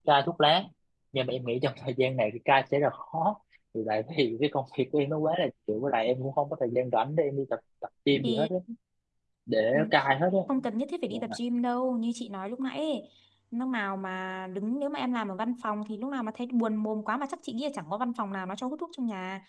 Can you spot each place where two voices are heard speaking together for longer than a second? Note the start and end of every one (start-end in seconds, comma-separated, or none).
none